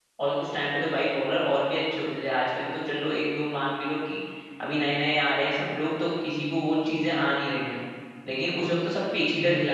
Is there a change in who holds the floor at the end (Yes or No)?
No